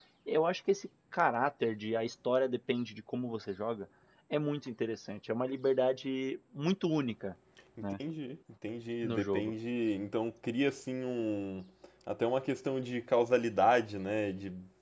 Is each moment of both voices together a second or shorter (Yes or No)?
Yes